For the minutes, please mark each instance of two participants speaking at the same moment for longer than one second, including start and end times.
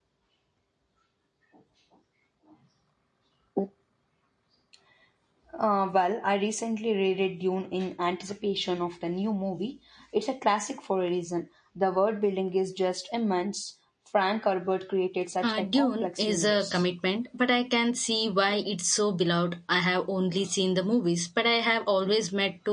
15.4-16.8

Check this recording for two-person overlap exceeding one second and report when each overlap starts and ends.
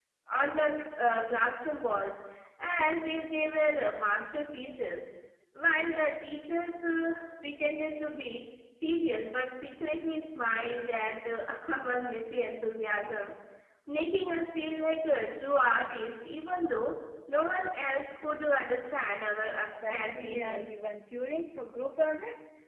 19.5-20.7

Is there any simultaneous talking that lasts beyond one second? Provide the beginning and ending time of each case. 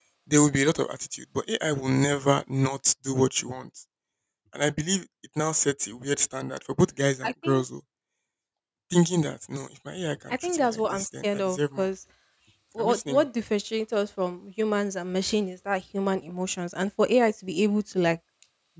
10.4-11.8

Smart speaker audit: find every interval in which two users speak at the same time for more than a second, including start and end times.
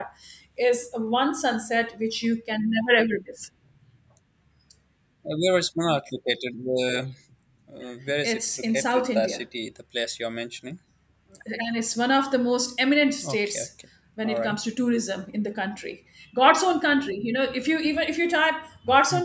8.2-9.4

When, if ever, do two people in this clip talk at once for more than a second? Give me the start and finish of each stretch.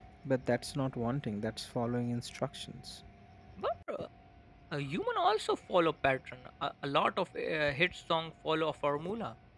none

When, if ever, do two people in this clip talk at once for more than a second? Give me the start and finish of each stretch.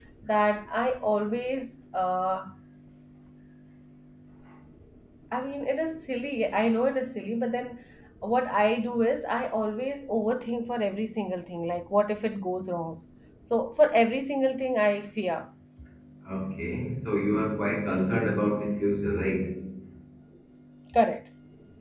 none

